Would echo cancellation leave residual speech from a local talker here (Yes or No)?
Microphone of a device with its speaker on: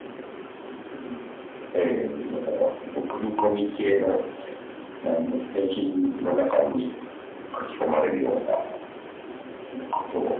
No